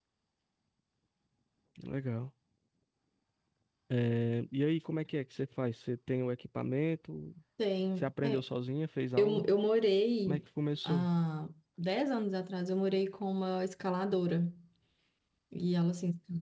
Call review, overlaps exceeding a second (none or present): none